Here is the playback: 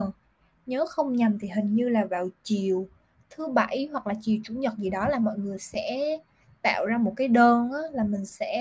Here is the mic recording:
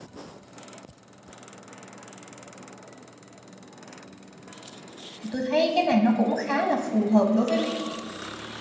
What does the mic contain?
user only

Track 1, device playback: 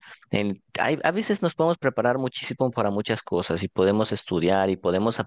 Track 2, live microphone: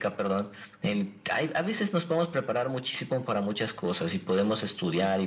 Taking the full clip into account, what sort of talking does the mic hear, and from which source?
echo only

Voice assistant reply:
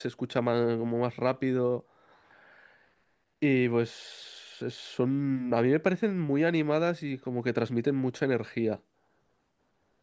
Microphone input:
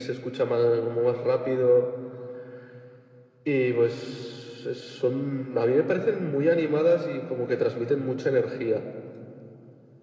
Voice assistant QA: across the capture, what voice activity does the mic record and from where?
echo only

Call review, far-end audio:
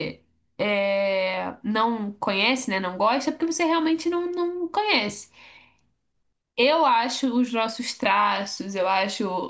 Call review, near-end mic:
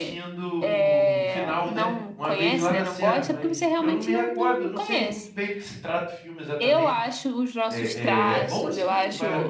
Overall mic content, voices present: both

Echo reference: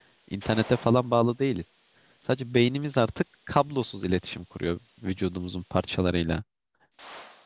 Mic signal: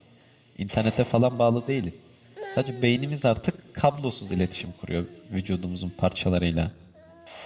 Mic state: echo only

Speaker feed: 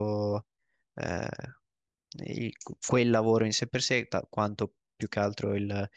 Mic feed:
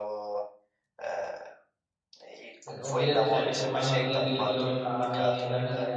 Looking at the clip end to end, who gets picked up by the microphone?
both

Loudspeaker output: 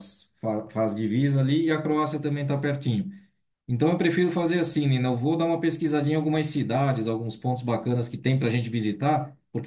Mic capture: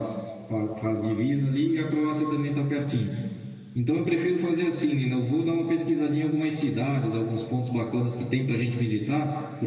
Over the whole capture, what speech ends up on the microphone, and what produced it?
echo only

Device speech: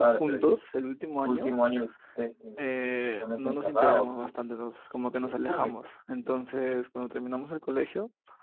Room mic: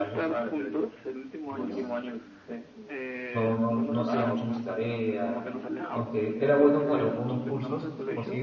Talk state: both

